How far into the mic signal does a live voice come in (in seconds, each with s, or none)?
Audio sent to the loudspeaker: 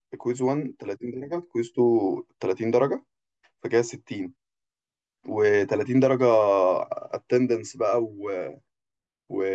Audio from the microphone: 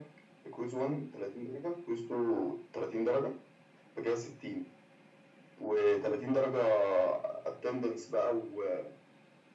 none